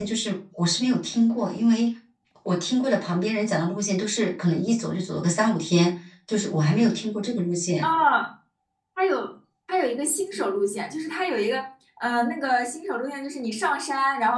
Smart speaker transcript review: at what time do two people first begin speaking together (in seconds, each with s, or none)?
none